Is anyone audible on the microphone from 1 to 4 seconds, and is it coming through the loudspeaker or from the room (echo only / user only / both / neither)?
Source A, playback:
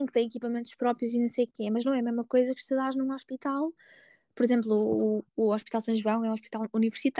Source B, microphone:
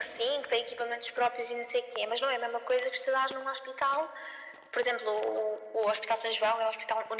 echo only